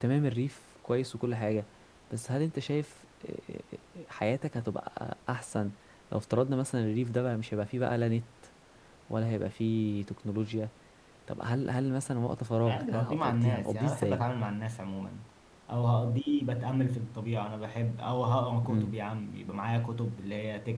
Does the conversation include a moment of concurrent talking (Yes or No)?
Yes